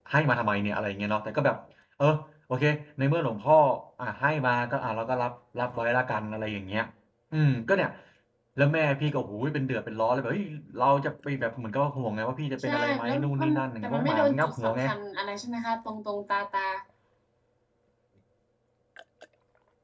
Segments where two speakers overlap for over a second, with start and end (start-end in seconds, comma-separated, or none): 12.7-14.8